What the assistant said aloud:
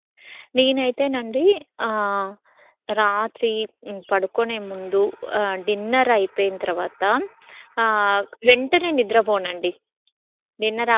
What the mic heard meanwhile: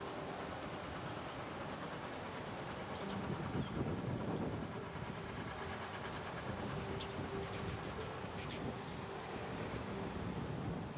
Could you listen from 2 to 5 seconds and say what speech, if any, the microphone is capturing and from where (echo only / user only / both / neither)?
neither